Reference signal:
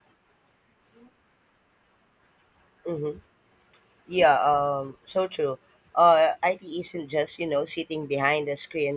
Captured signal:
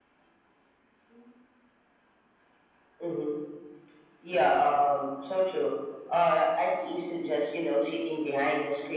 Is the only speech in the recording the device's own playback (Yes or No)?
Yes